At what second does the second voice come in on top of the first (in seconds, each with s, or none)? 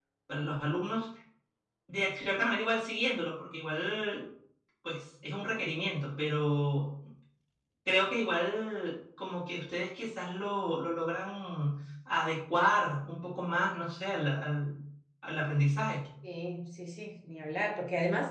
none